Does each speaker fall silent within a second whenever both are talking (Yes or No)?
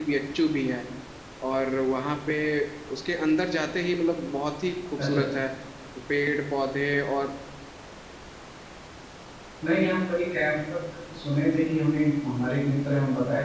Yes